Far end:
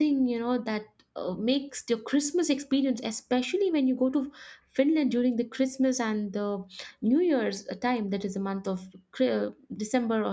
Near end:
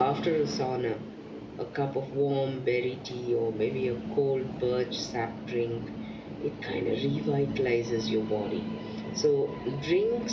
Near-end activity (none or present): present